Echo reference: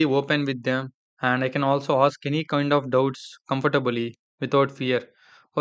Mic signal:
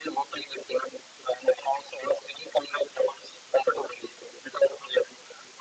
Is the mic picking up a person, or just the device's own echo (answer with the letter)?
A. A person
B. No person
B